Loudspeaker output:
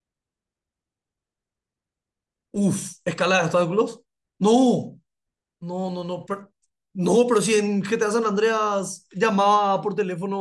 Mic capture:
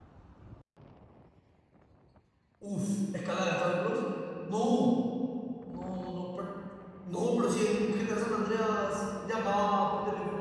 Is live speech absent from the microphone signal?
Yes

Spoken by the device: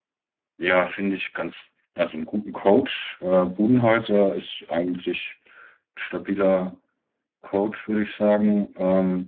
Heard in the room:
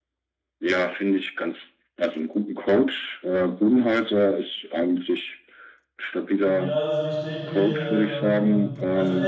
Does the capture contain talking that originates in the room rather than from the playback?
Yes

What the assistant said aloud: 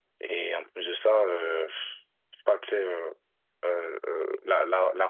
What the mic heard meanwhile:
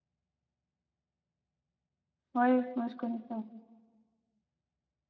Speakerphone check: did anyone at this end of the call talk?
Yes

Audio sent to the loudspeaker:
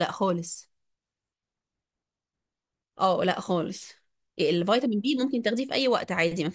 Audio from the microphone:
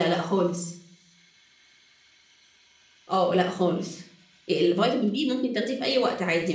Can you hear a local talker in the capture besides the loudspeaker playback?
No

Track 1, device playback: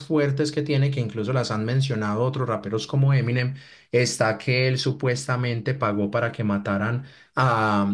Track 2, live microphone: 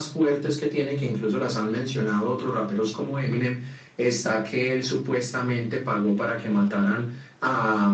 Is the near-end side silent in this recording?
Yes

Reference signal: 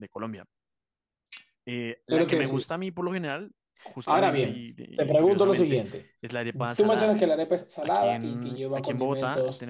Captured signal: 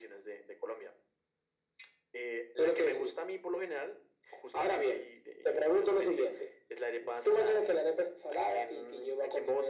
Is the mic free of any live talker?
Yes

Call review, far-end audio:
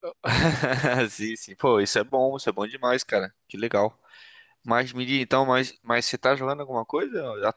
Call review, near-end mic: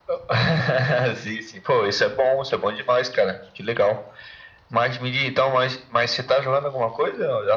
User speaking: No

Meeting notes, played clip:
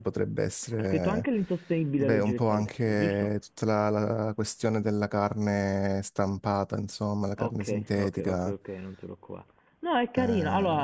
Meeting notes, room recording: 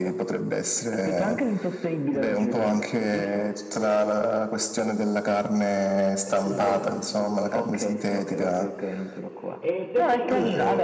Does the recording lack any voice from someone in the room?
No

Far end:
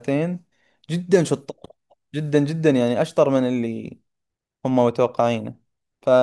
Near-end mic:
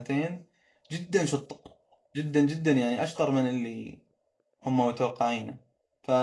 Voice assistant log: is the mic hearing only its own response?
Yes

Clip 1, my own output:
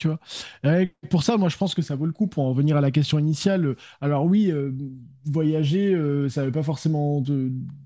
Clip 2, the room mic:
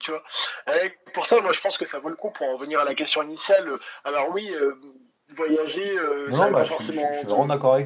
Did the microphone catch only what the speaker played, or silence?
No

